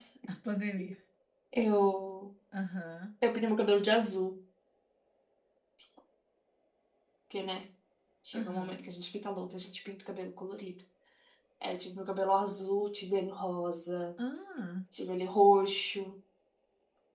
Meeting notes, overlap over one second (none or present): none